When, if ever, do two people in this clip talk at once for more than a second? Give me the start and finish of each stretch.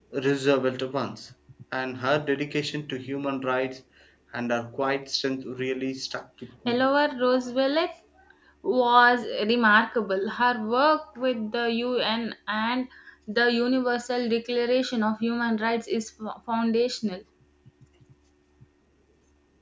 none

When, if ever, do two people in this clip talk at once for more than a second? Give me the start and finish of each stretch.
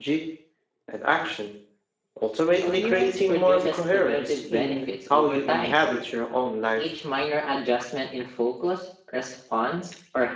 2.6-5.9

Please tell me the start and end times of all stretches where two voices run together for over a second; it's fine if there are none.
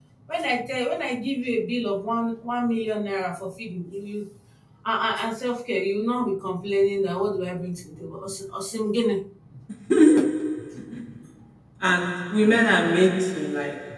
none

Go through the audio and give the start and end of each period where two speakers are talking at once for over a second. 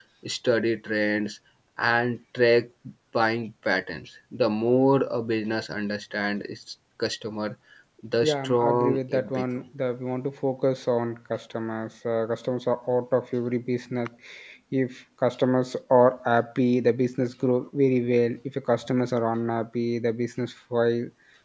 8.2-9.4

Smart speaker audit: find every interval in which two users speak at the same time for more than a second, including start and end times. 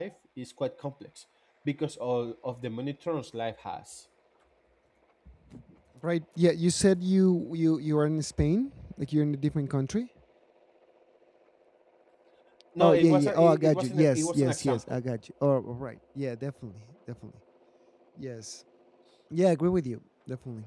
12.8-15.0

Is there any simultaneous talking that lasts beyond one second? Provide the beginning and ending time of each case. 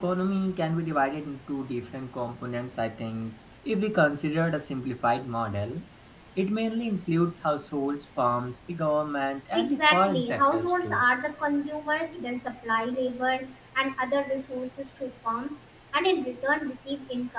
9.5-11.0

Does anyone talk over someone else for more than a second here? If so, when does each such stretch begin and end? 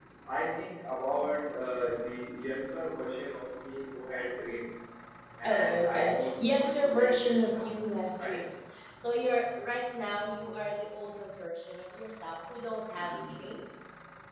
5.4-7.8

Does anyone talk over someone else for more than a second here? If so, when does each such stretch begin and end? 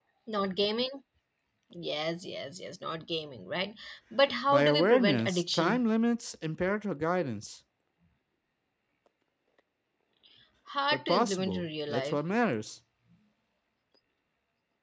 4.5-5.8, 10.9-12.2

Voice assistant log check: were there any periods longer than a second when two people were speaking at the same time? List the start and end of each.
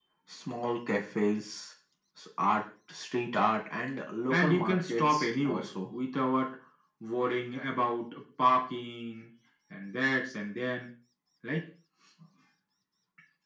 4.3-5.7

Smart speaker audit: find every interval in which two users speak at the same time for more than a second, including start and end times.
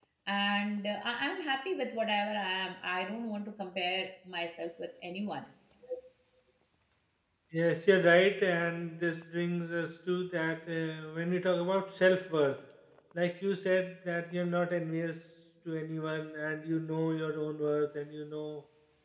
none

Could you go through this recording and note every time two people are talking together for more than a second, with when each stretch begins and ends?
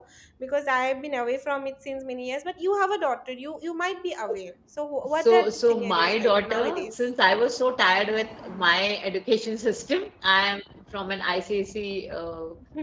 5.2-7.0

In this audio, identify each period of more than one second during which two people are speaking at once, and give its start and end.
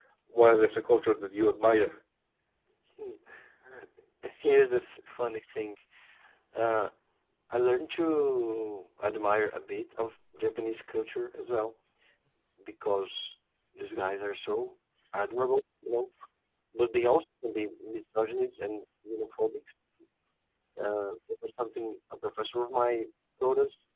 none

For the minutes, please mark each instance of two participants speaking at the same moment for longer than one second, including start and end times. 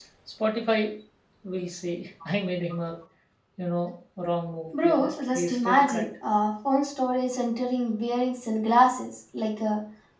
4.8-6.1

